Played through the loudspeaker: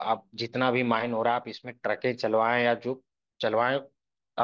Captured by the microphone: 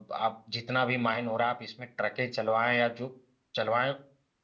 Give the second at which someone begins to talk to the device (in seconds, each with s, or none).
none